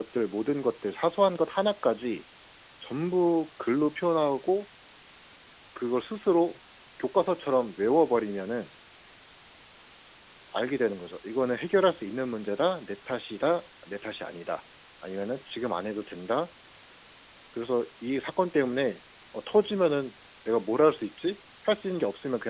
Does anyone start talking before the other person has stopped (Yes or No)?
No